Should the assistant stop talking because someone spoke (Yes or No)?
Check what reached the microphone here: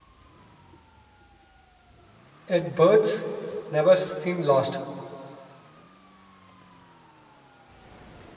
Yes